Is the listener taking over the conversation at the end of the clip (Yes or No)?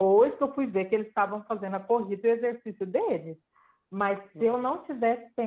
No